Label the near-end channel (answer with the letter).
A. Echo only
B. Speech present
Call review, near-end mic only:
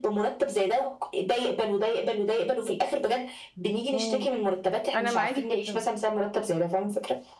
B